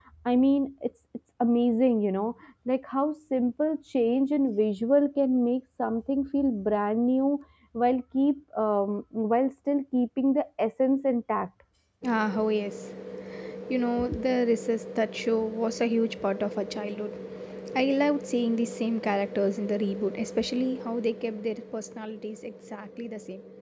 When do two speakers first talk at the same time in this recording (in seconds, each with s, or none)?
none